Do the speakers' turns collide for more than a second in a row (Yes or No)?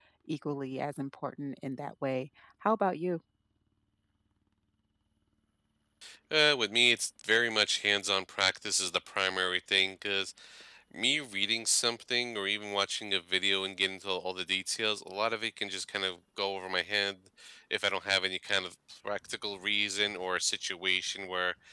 No